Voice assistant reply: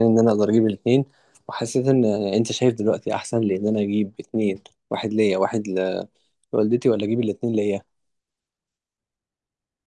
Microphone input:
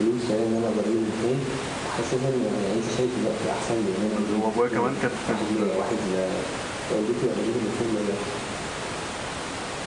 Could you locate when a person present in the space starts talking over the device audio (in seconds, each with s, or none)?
4.0 s